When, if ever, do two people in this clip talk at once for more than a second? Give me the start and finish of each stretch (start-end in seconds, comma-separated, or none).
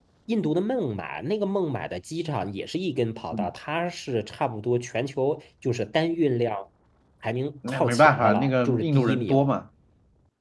7.7-9.5